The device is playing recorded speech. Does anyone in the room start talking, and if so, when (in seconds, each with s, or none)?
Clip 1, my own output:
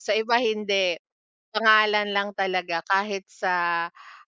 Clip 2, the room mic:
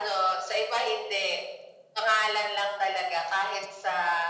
none